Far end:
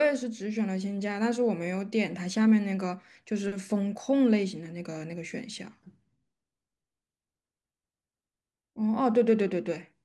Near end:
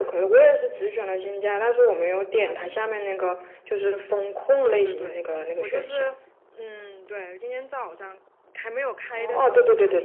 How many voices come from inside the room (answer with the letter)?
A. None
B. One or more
B